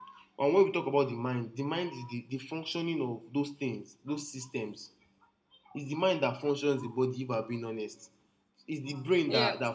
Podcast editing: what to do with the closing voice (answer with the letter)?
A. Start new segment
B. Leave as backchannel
B